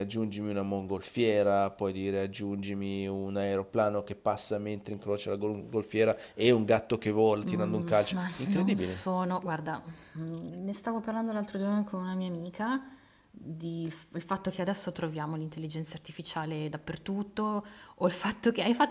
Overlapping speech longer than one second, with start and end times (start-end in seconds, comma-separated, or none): 7.5-9.0